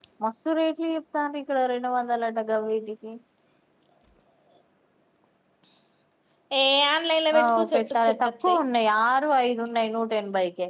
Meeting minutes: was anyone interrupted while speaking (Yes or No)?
Yes